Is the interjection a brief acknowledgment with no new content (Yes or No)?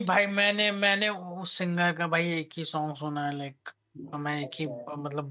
No